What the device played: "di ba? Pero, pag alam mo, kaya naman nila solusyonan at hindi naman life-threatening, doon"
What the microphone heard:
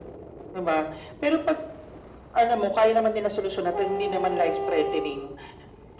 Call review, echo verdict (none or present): present